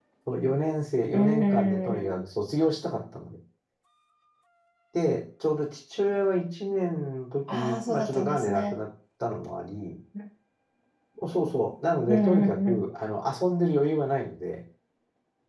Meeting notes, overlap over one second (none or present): present